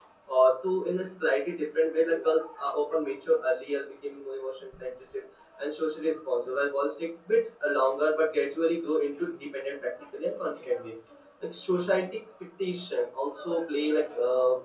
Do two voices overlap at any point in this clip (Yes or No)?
No